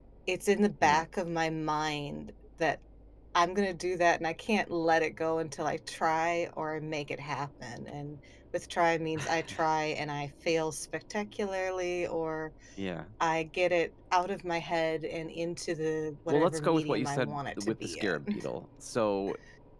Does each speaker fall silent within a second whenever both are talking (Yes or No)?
No